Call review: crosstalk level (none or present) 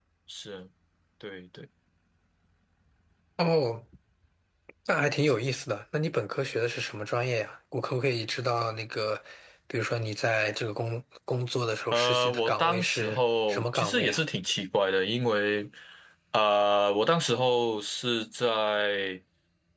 present